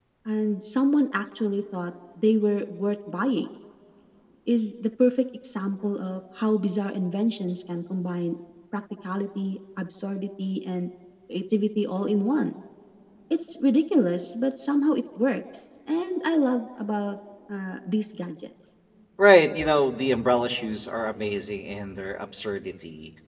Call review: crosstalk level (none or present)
none